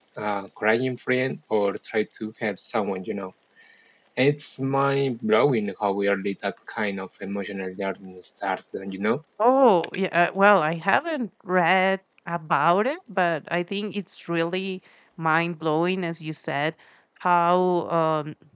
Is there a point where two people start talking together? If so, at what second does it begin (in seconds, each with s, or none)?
none